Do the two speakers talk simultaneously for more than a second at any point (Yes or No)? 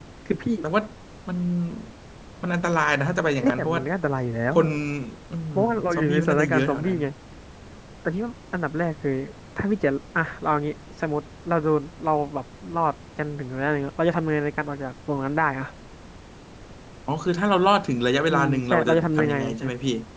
Yes